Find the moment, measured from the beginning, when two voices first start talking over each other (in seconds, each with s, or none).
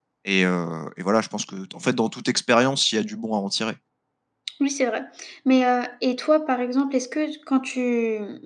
none